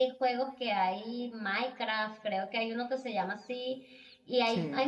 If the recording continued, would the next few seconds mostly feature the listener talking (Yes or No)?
No